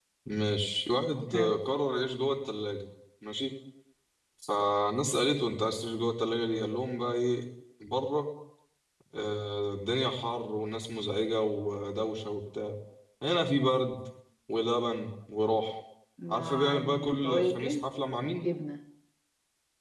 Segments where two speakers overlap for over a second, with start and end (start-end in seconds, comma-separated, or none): 16.3-17.8